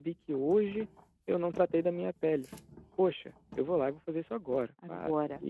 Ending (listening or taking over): listening